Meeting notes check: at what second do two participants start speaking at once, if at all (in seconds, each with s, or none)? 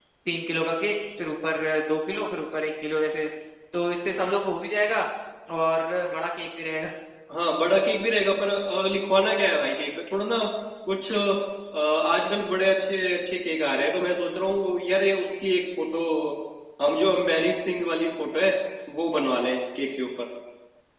none